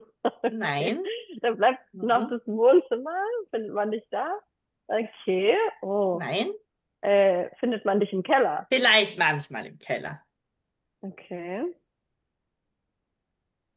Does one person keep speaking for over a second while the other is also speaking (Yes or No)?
No